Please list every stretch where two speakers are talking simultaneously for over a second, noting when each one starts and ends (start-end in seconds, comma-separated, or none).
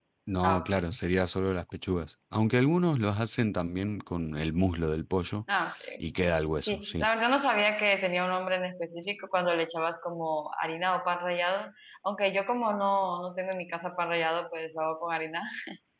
none